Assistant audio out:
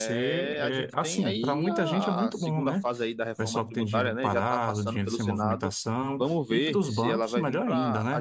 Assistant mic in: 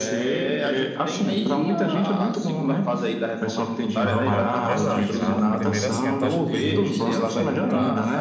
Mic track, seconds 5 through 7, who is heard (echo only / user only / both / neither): both